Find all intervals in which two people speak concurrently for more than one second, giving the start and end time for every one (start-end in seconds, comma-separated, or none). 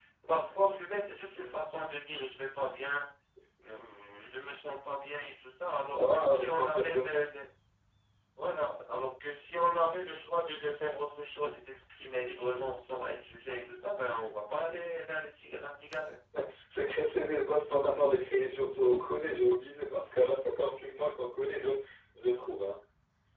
5.9-7.2